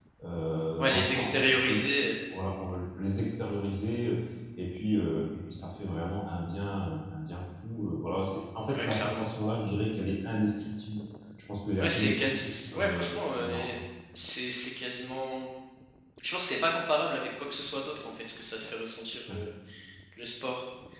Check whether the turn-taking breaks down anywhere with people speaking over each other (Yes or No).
Yes